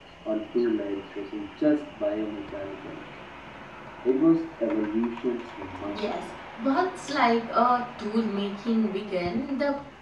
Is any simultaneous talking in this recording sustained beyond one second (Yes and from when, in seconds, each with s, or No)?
No